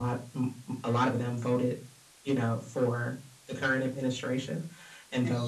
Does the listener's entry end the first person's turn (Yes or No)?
No